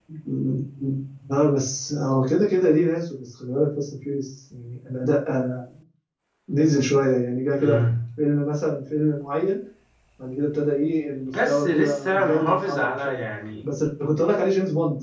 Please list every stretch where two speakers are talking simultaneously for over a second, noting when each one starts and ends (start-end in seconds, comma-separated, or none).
11.2-13.2